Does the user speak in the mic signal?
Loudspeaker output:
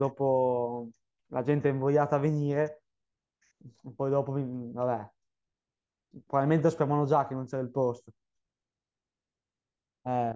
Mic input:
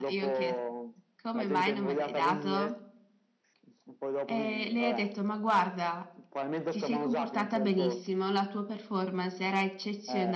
Yes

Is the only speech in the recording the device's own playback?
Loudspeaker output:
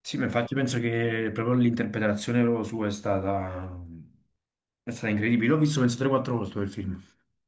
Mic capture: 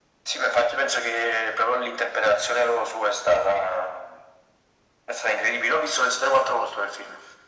Yes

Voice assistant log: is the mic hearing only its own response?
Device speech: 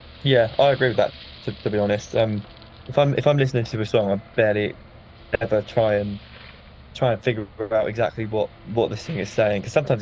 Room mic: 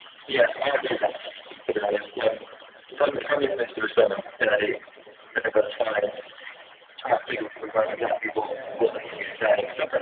No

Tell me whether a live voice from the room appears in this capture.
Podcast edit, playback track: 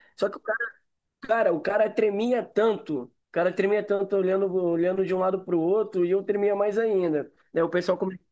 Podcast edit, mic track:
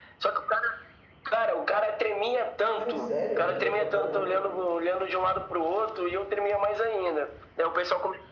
Yes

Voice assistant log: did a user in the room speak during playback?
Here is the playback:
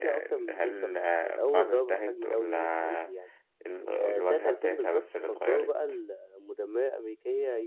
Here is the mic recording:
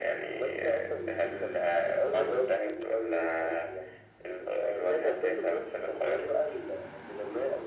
No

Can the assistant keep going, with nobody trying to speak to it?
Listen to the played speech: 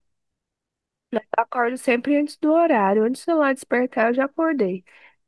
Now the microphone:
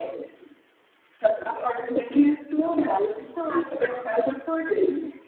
Yes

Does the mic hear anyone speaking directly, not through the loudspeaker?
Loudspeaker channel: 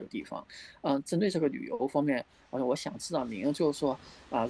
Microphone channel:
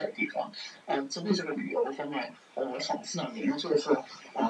No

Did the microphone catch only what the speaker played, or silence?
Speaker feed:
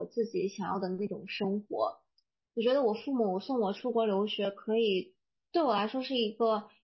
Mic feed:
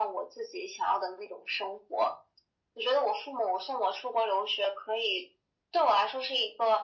Yes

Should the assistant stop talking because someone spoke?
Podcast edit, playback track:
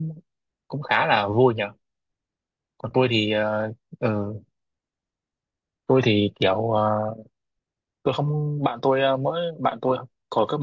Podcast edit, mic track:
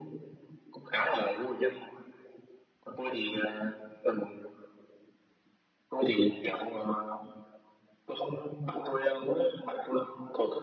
No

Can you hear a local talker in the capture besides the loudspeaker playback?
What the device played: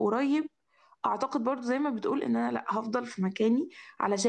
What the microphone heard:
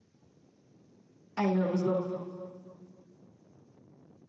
Yes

